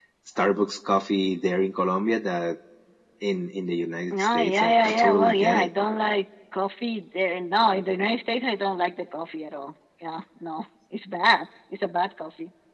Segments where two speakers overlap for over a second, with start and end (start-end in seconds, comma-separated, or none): 4.1-5.7